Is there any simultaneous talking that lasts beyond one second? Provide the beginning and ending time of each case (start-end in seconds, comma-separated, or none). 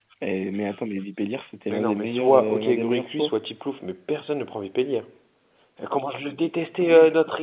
1.7-3.3